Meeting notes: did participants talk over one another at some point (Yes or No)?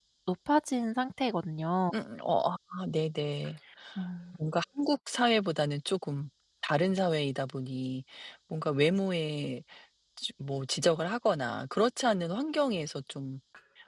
No